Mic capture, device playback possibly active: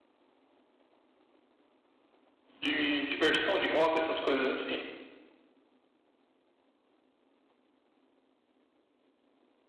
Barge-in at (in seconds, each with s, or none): 2.6 s